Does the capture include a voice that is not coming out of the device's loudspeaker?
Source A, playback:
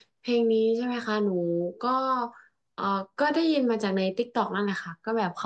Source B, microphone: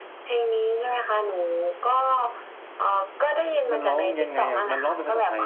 Yes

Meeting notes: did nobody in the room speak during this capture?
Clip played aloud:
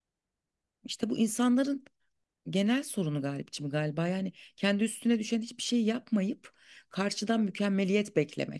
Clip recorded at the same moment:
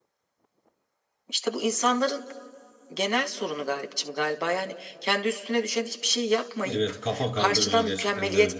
No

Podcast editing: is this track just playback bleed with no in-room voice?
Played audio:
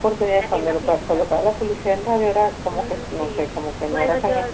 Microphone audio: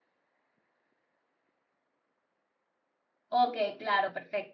No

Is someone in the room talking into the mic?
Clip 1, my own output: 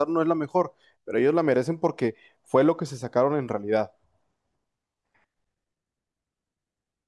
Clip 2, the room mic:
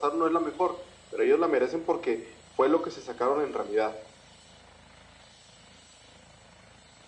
No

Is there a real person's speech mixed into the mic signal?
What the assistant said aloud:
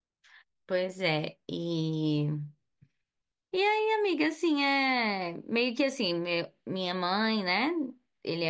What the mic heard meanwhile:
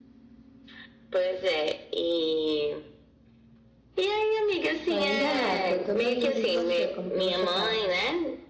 Yes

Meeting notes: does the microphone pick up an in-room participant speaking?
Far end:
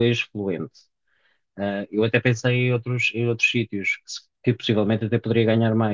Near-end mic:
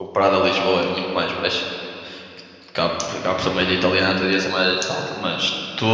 Yes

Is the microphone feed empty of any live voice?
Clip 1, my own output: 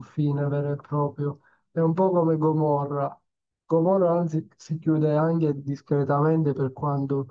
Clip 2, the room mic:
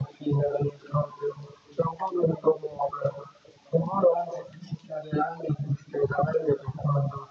Yes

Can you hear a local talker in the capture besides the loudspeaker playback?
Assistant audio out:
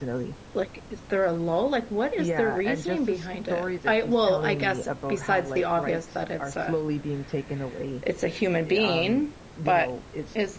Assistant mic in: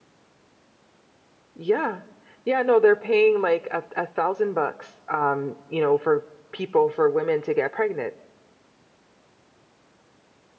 Yes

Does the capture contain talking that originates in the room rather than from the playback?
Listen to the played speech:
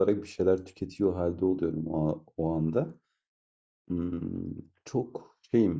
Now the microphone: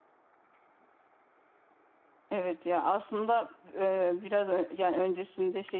Yes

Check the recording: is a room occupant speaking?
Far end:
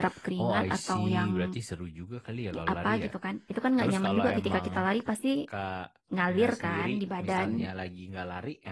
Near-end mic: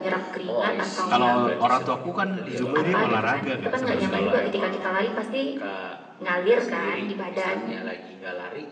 Yes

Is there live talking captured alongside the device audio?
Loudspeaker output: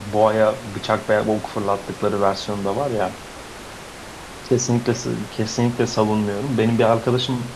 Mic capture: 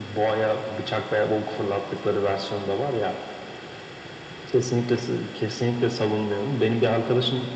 No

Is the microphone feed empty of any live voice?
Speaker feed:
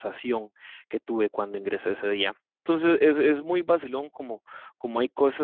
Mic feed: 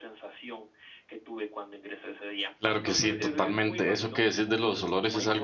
No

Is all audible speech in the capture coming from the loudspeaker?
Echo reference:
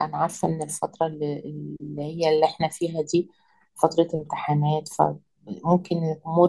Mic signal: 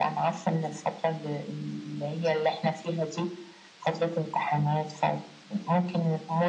Yes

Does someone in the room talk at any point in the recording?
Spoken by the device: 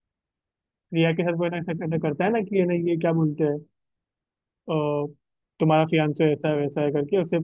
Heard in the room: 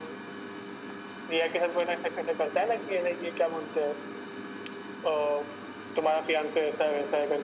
No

